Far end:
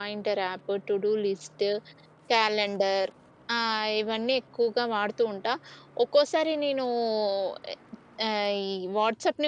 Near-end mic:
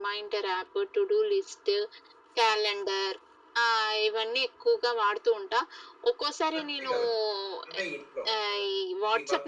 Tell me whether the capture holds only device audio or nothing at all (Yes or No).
No